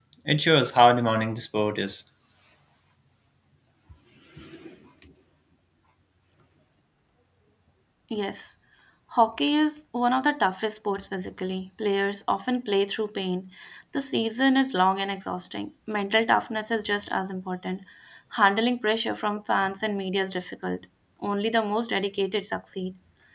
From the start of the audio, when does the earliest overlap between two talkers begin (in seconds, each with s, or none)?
none